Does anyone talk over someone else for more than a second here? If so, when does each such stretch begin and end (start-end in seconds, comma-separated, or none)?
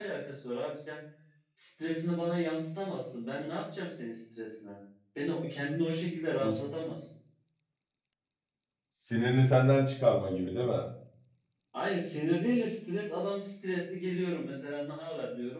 none